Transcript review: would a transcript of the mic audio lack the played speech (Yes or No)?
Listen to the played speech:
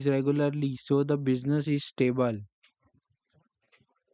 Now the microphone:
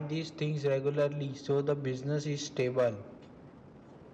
No